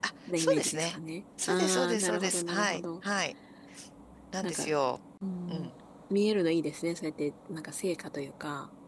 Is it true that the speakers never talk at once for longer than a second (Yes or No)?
No